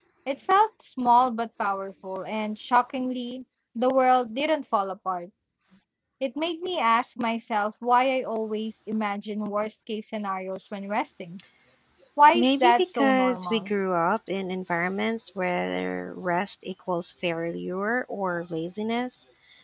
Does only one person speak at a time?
No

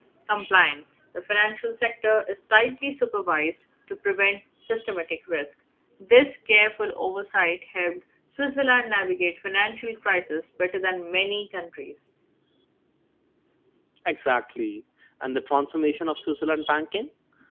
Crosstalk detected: No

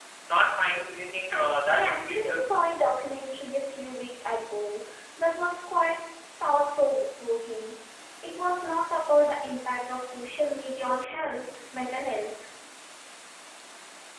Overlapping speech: Yes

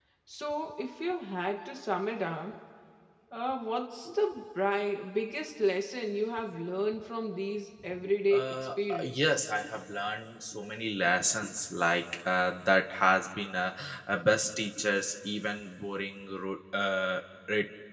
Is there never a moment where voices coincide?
No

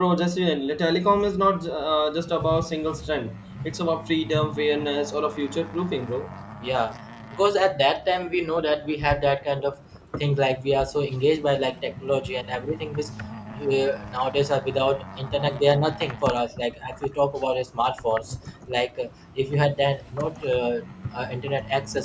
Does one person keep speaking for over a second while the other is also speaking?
No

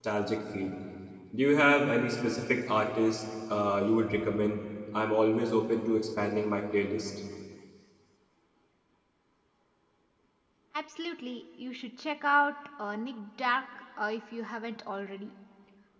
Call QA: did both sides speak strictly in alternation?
Yes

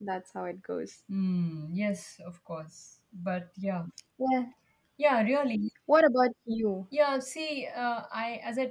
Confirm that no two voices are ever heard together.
Yes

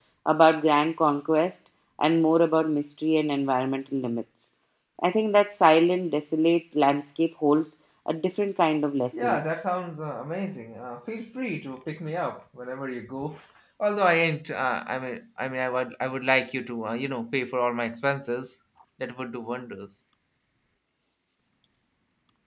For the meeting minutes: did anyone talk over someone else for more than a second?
No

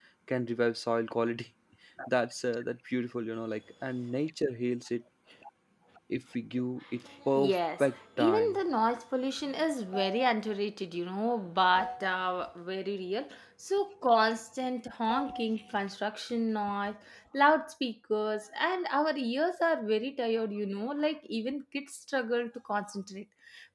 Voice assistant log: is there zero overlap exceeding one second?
No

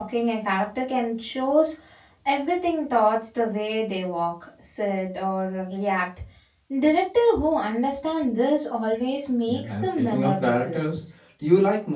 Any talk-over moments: Yes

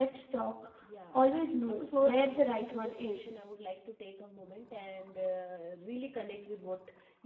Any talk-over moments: Yes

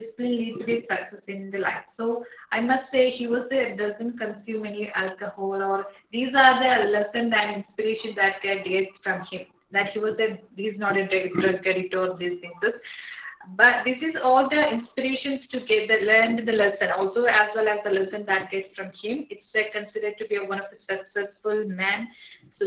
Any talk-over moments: No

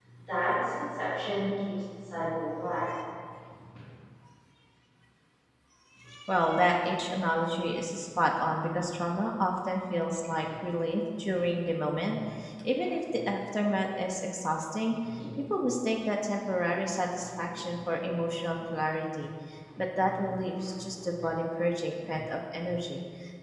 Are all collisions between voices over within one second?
Yes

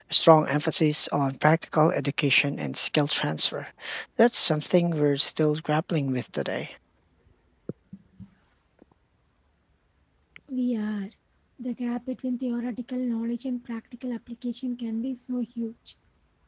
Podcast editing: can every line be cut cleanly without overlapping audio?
Yes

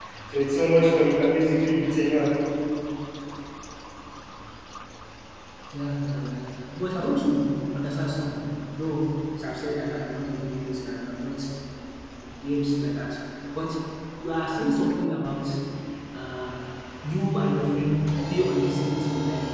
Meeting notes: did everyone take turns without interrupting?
Yes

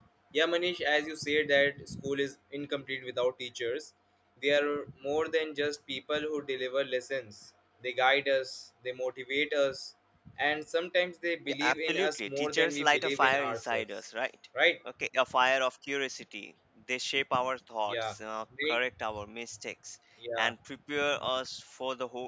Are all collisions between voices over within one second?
No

